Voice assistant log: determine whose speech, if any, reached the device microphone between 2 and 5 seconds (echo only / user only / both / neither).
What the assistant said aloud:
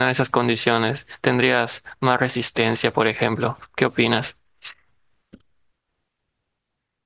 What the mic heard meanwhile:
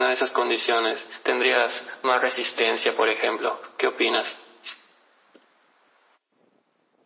echo only